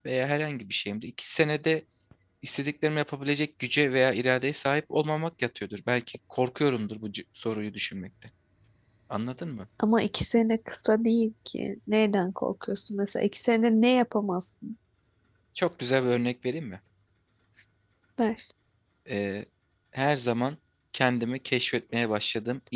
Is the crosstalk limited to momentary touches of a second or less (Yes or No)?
Yes